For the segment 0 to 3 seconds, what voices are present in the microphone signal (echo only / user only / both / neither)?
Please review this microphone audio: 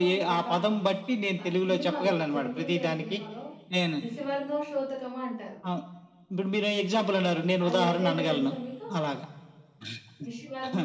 both